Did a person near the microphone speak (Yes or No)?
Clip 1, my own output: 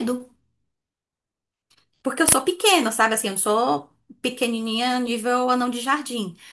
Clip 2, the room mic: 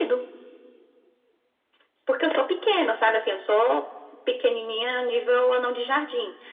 No